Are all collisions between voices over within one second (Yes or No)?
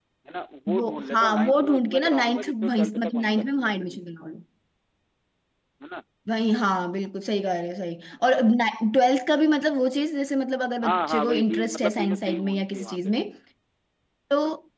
No